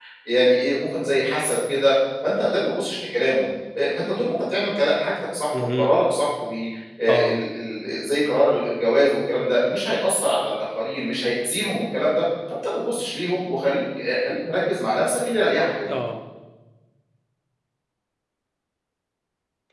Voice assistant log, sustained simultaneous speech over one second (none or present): none